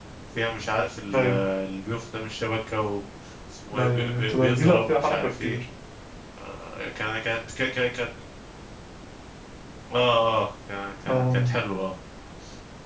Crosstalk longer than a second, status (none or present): present